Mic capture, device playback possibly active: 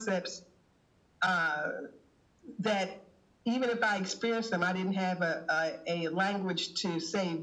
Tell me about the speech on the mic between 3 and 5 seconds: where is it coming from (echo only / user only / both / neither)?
echo only